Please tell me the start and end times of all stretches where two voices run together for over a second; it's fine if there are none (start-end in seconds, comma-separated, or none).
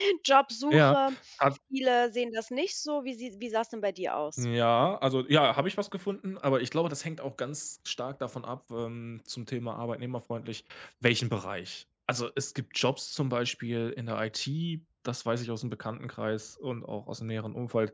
none